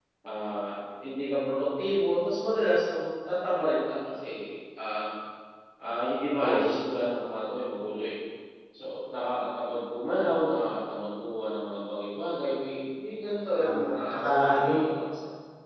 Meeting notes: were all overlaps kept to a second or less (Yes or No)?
No